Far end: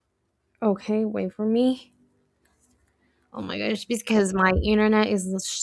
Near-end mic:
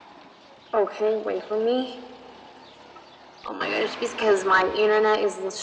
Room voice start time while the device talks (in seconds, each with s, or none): none